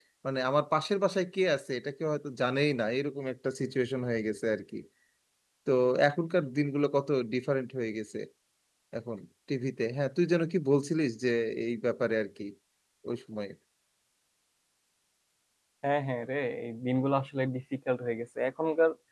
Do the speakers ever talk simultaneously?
No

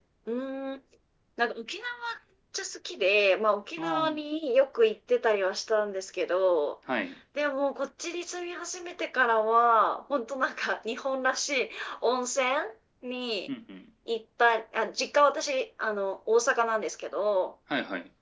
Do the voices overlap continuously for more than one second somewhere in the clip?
No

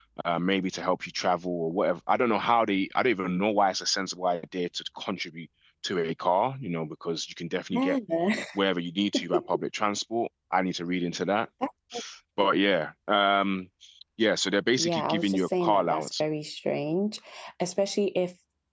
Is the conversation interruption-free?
No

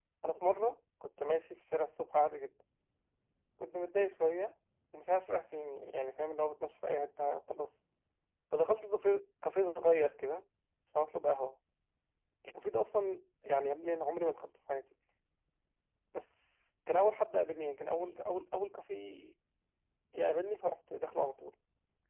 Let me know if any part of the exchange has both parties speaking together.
No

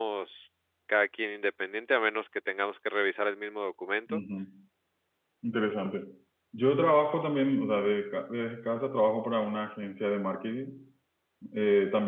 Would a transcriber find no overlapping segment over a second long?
Yes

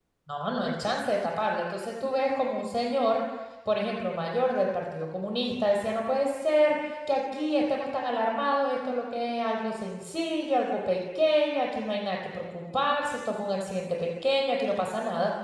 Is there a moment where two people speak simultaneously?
No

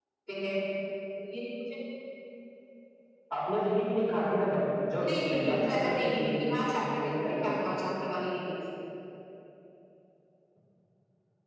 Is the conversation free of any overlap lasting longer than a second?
No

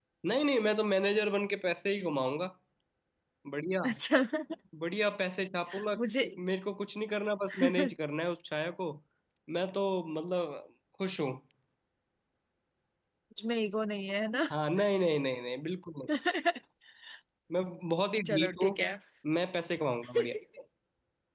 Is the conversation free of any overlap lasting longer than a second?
Yes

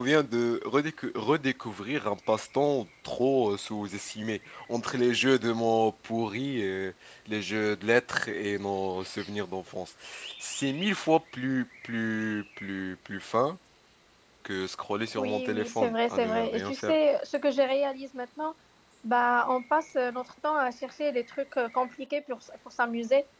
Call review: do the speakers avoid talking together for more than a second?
No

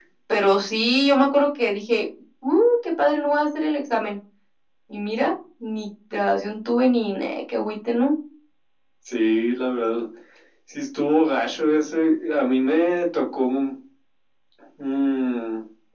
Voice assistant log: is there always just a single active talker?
Yes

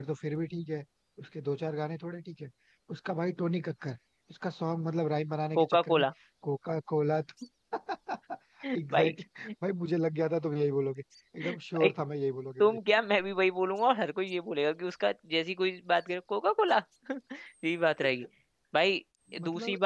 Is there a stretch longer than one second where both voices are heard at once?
No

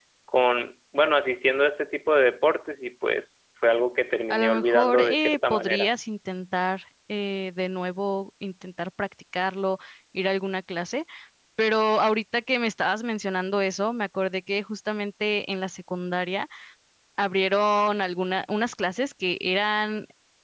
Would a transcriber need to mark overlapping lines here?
Yes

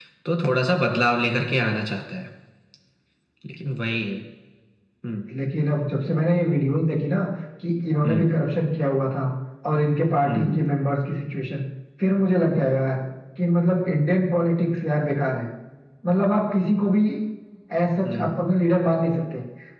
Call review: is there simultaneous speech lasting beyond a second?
No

